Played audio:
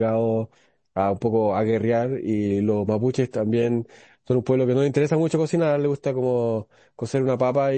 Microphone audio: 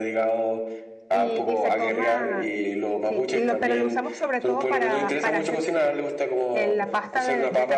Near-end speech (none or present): present